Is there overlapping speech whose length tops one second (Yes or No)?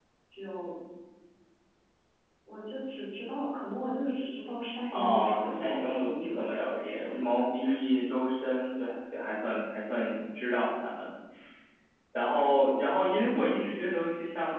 Yes